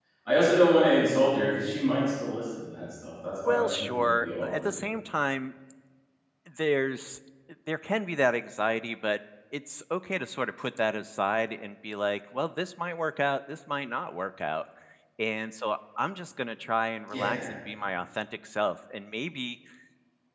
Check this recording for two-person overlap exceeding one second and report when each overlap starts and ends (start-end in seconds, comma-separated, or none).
3.5-4.7